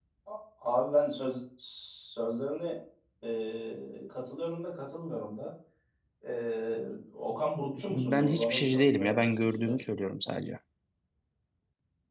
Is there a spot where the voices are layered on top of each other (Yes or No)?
Yes